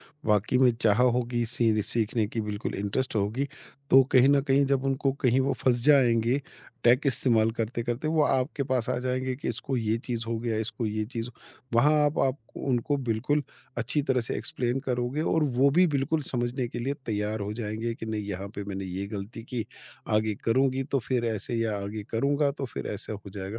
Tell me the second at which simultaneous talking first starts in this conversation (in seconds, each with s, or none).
none